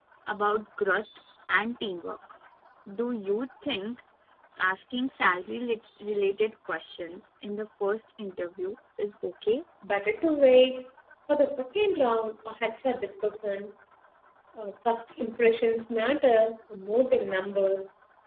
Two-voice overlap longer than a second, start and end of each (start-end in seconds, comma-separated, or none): none